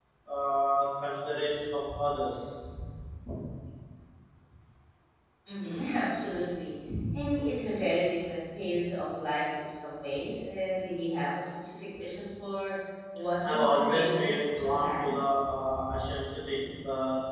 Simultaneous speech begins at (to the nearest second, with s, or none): 13 s